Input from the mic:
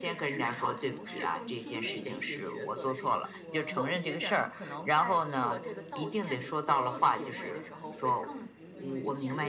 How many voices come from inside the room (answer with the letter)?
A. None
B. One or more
B